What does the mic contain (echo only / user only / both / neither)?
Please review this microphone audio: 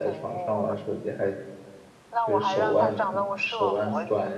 both